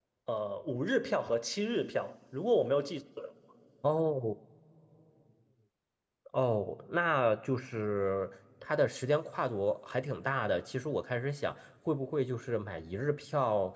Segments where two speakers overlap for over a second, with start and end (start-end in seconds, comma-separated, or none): none